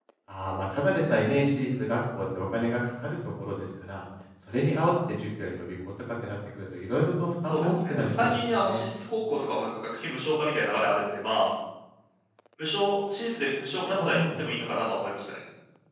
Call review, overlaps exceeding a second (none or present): present